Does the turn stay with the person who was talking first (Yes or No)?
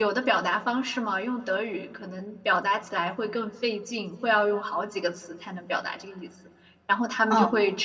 Yes